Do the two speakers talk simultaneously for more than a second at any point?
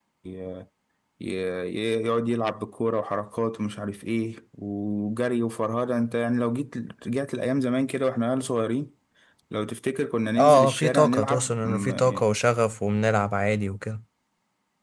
Yes, from 10.4 s

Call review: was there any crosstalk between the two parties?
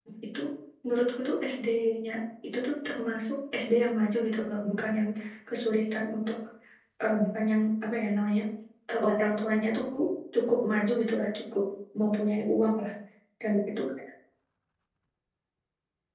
No

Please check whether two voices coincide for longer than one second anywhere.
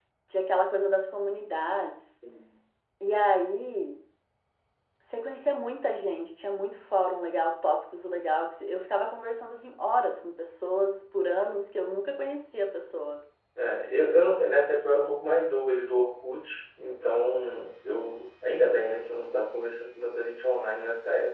No

